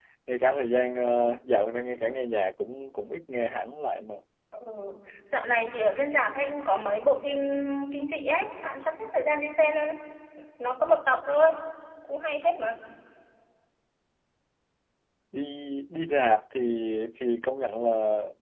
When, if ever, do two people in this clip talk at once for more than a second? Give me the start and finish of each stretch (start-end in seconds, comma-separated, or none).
none